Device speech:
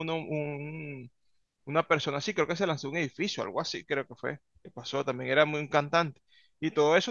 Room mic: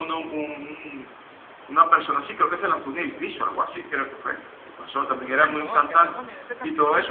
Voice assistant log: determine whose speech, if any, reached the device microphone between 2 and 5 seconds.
echo only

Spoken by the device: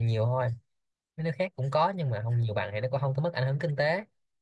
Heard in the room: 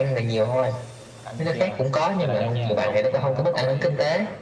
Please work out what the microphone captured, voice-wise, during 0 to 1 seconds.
echo only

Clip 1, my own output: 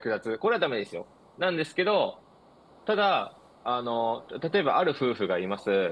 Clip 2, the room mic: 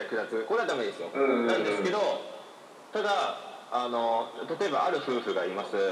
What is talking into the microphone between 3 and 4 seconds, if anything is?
echo only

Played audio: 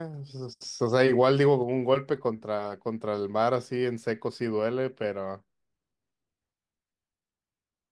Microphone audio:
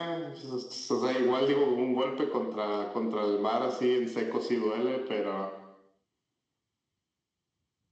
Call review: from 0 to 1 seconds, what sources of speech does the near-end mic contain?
echo only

